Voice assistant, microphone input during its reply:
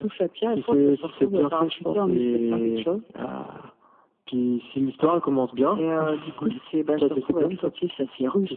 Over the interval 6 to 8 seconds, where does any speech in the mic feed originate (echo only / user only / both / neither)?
echo only